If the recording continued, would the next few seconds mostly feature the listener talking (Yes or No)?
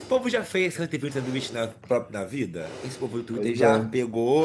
No